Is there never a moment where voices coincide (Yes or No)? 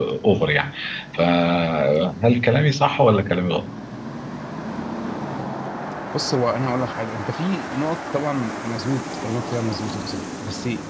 Yes